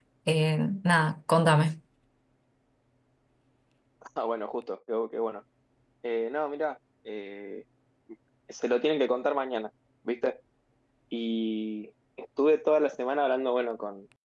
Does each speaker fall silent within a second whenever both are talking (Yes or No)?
Yes